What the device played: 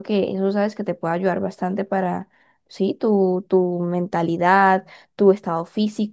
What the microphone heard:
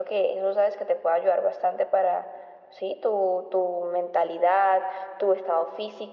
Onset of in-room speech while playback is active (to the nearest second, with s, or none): none